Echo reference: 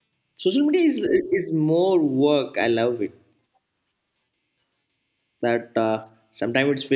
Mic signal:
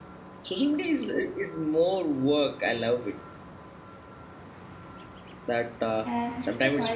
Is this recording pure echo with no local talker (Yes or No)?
No